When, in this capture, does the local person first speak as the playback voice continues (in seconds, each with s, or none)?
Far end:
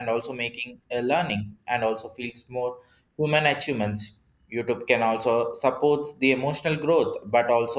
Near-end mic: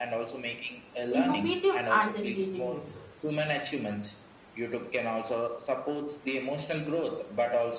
1.1 s